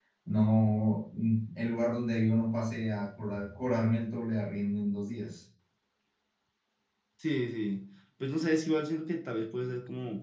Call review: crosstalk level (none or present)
none